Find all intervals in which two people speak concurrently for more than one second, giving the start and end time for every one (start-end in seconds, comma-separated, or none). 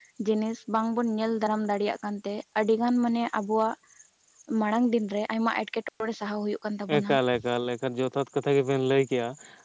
none